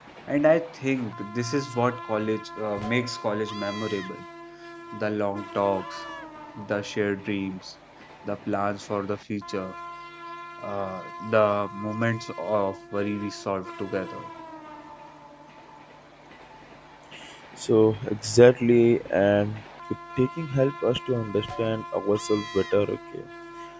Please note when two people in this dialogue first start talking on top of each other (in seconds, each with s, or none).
none